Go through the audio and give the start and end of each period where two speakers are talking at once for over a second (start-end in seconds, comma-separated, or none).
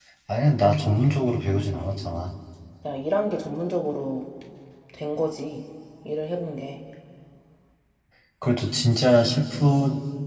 none